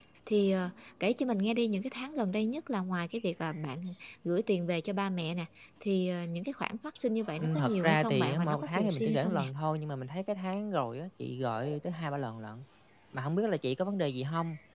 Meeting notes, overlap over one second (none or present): present